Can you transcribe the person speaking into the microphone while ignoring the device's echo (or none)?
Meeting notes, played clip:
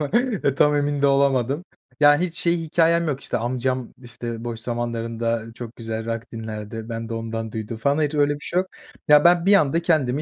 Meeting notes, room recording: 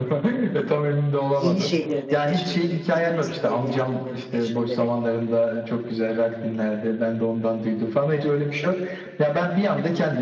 yeni şeyleri de keşfederek, yeni müzikleri ve ritimleri keşfederek.